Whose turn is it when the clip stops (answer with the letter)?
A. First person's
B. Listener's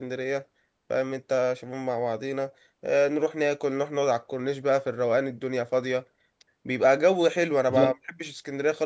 A